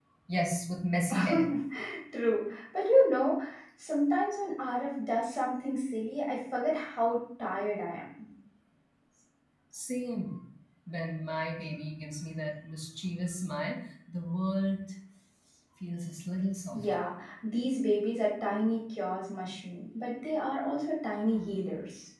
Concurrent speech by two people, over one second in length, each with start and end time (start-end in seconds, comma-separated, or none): none